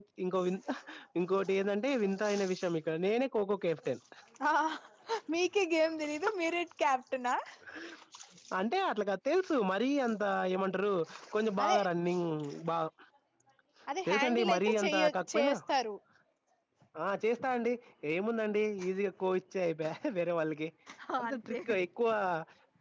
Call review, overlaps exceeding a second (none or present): present